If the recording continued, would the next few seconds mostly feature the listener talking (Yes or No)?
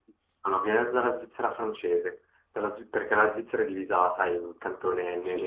No